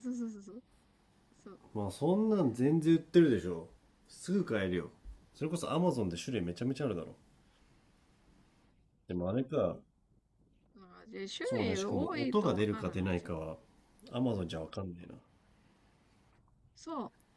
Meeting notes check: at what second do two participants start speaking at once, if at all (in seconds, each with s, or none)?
11.5 s